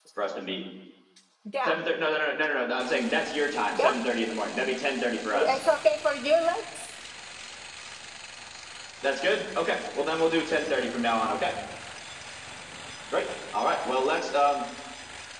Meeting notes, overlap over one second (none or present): none